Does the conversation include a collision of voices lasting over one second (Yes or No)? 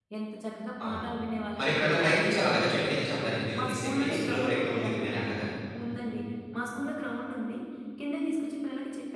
Yes